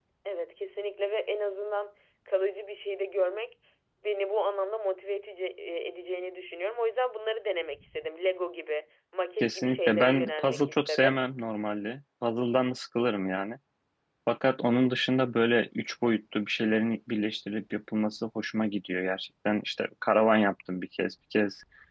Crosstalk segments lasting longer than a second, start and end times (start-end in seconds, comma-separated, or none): 9.4-11.2